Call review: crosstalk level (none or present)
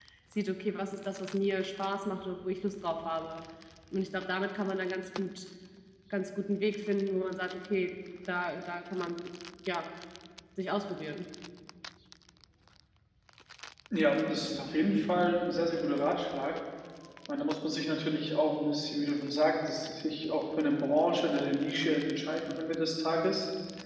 none